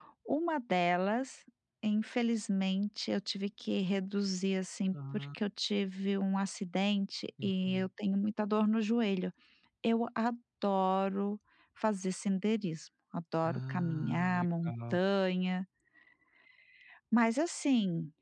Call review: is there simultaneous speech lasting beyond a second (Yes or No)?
Yes